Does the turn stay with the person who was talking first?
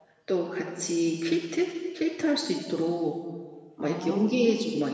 Yes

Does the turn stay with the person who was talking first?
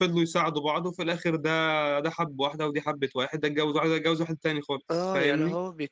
No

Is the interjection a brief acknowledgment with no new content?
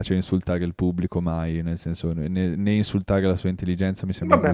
No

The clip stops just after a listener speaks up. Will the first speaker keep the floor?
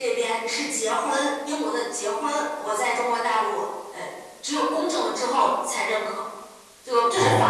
No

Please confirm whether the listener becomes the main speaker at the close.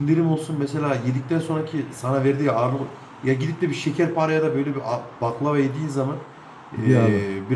No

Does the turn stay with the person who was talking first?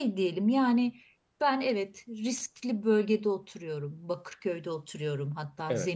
Yes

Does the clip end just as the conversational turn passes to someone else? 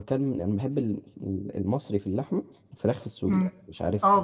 Yes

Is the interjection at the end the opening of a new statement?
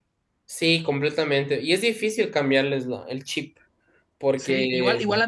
Yes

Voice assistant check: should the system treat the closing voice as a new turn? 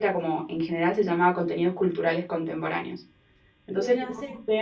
No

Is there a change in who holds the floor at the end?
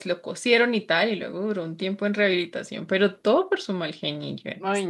Yes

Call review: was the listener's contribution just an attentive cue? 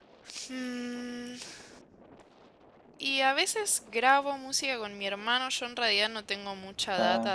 Yes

